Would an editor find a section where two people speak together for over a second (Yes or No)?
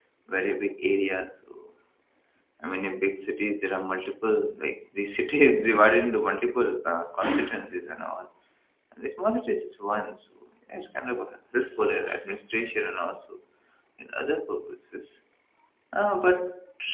No